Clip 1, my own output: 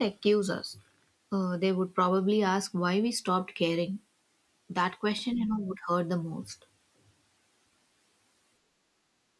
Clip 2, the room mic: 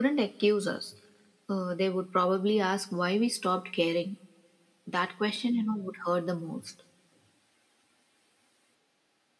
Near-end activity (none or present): none